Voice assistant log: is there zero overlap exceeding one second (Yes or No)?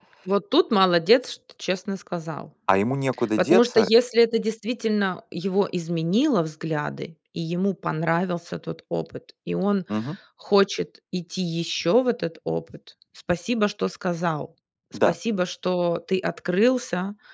Yes